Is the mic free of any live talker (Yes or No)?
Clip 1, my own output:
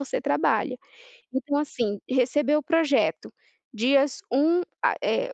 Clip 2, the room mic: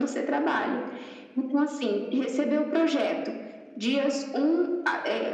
Yes